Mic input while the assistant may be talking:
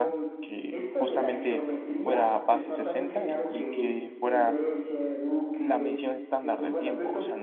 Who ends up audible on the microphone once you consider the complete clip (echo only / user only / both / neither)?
both